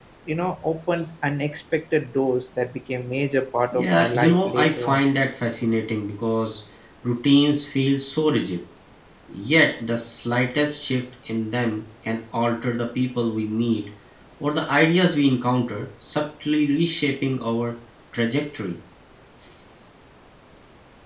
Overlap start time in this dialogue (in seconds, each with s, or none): 3.7 s